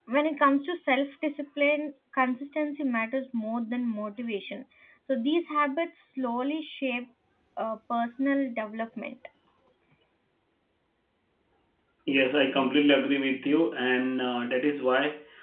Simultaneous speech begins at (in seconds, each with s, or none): none